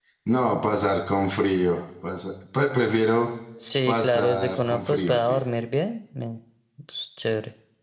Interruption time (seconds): 3.9 s

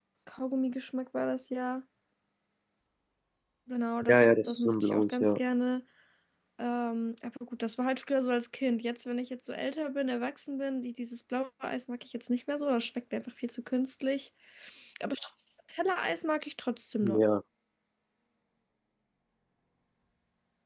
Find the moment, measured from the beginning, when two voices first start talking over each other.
4.1 s

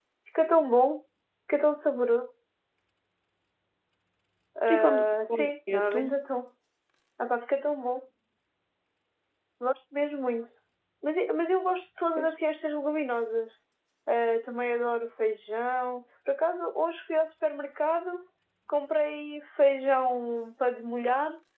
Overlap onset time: 4.7 s

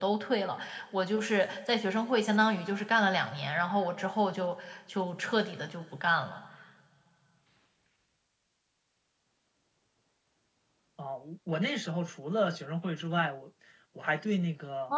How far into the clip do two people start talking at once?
none

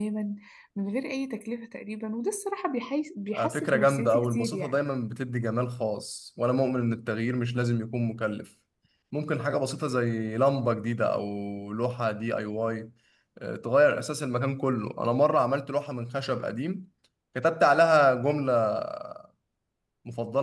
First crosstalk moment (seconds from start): 3.3 s

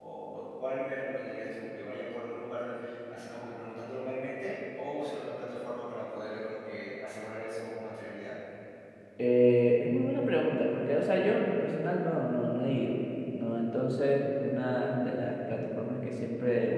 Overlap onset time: none

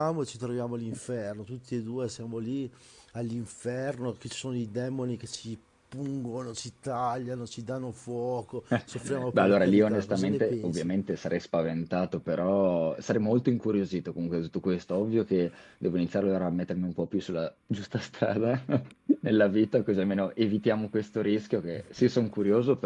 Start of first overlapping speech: 8.7 s

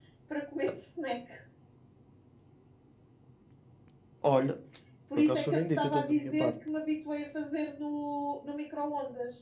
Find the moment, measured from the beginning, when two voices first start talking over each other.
5.2 s

